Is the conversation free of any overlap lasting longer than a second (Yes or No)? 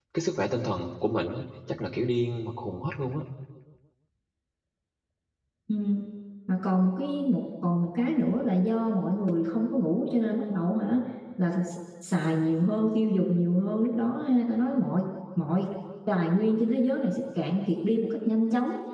Yes